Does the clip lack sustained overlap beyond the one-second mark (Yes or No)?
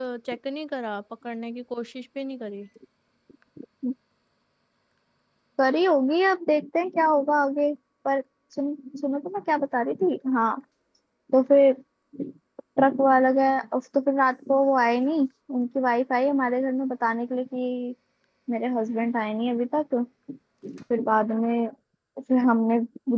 Yes